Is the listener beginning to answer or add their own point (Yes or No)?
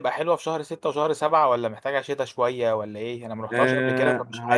Yes